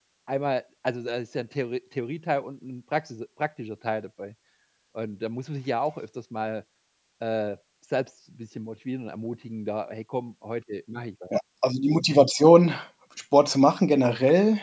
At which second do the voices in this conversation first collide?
none

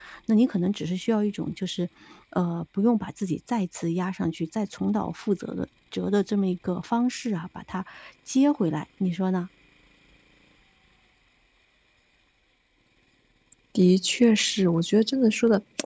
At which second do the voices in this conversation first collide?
none

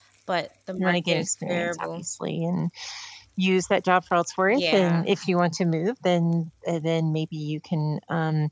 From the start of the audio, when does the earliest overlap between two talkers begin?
1 s

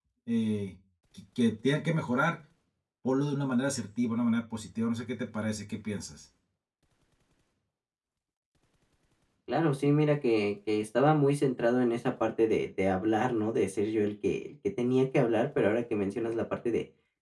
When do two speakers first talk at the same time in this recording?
none

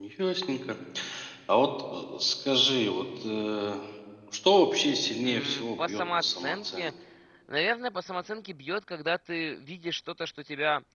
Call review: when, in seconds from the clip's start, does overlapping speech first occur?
5 s

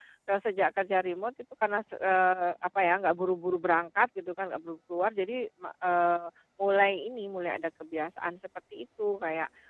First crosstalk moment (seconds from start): none

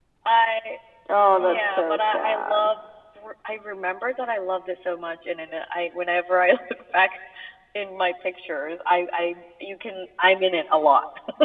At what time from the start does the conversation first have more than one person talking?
1 s

